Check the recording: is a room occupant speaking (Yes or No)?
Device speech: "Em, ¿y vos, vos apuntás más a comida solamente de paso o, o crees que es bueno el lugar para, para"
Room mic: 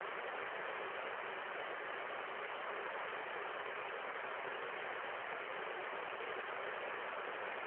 No